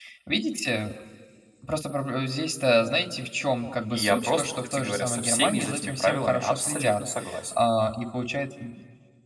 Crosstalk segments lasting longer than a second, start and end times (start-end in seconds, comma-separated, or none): 3.9-7.0